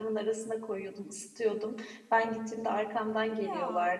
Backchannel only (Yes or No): Yes